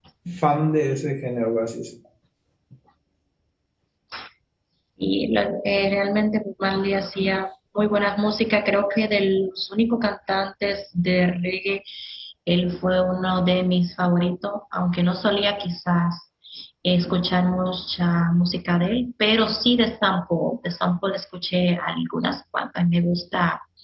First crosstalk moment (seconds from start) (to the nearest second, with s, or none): none